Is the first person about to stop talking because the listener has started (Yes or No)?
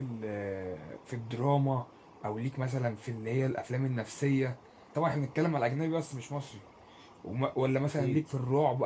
No